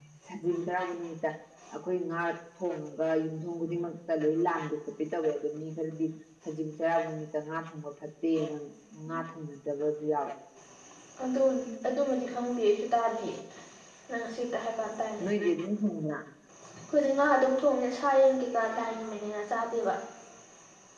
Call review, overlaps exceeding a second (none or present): none